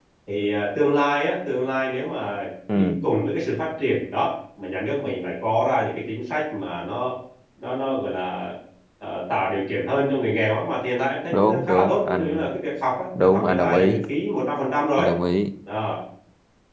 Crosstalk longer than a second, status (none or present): present